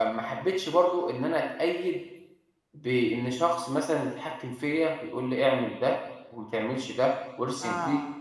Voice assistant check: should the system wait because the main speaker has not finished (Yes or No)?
No